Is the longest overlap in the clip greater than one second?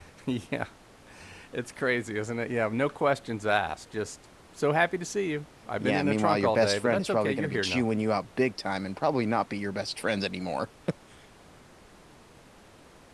Yes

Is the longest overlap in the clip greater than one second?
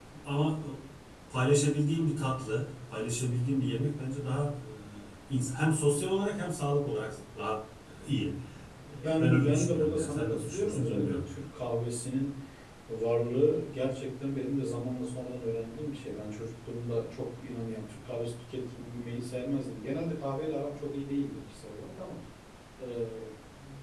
Yes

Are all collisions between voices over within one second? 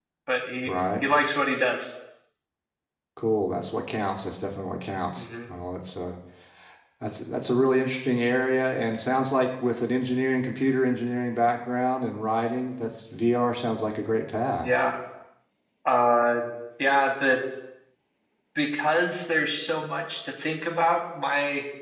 Yes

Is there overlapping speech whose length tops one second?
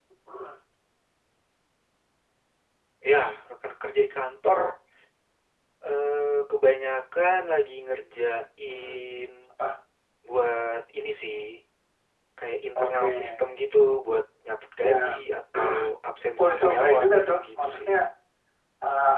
Yes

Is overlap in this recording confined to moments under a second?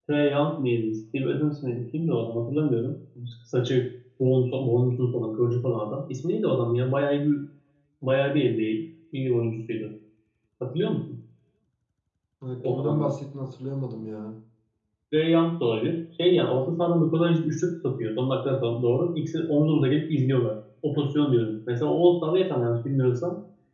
Yes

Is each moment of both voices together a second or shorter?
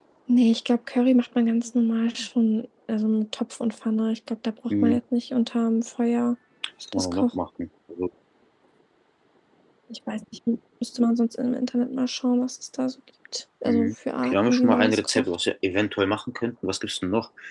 No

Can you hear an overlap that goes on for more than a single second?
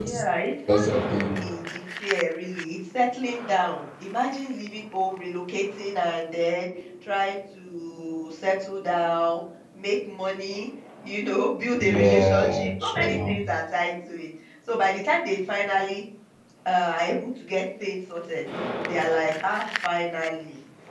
Yes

